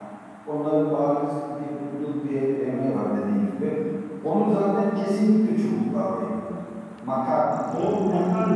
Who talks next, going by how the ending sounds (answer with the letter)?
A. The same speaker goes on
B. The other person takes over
B